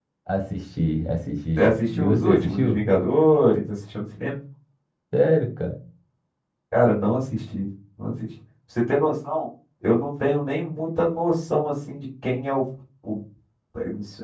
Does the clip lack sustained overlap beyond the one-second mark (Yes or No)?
No